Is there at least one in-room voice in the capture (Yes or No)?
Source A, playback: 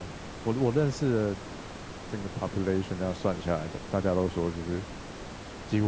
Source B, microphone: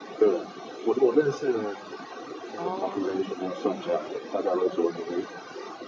Yes